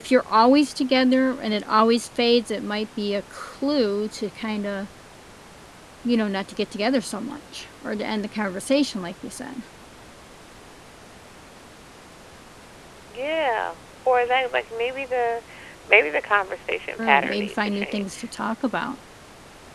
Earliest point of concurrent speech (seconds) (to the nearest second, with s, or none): 17 s